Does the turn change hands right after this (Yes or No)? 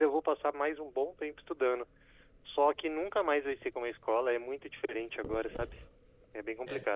Yes